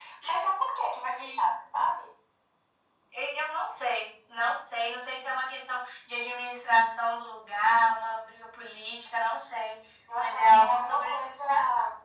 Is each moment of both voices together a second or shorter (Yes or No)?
No